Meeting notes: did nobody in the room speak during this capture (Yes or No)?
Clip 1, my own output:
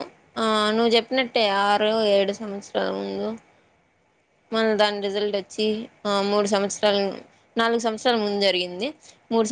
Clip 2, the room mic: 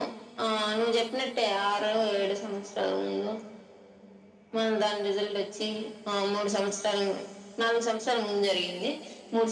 Yes